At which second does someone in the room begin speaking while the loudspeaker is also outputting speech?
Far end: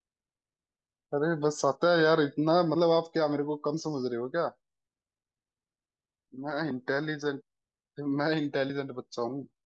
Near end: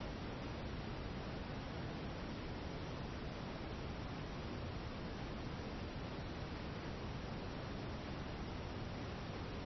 none

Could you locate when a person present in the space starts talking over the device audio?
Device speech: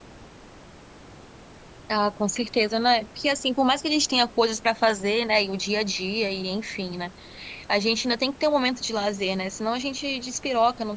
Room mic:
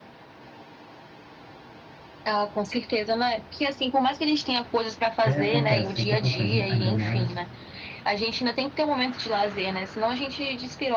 5.2 s

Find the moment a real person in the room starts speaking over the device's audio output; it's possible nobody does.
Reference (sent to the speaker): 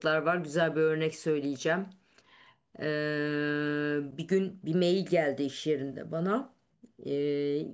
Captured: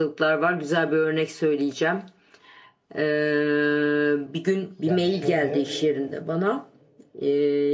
4.8 s

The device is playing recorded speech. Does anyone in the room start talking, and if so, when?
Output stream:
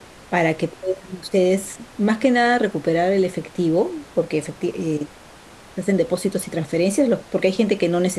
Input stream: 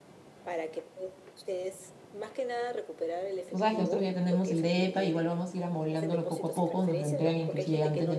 3.5 s

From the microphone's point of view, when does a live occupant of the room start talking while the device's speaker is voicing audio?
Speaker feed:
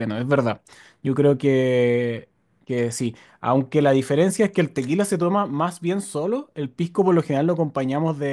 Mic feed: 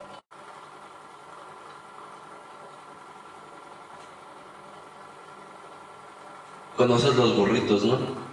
6.7 s

